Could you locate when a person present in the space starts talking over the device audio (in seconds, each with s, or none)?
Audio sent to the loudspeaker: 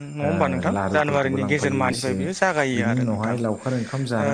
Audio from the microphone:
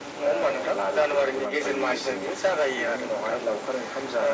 none